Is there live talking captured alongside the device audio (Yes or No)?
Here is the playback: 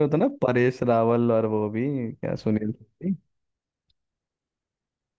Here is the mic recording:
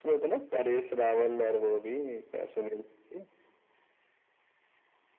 No